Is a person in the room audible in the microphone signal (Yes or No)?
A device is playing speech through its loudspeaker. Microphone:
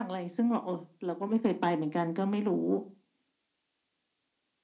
No